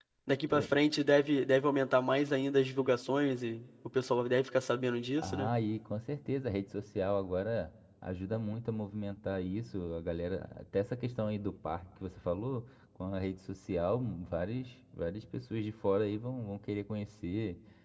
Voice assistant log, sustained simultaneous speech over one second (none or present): none